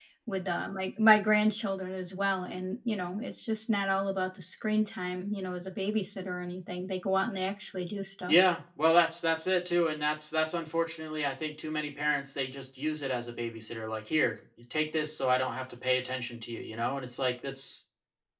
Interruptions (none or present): none